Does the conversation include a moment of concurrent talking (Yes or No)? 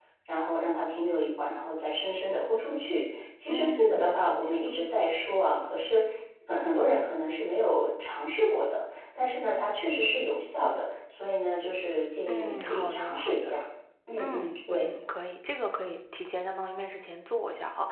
Yes